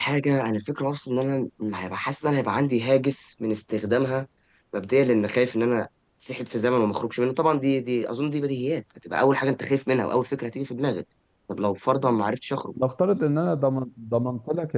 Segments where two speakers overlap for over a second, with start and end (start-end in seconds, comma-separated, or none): none